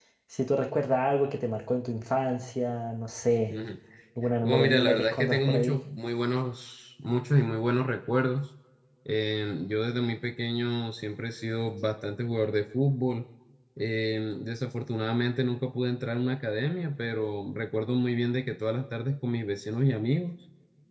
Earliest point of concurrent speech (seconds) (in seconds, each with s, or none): 4.4 s